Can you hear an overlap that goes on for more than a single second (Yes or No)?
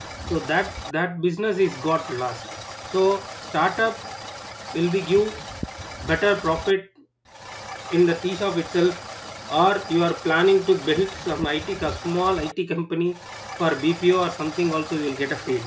No